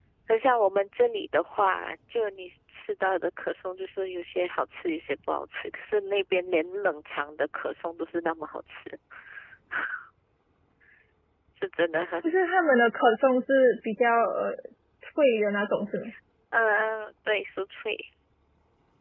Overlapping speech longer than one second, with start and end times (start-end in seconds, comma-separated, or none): none